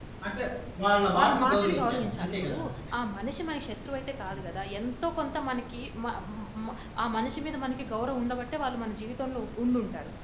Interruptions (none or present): present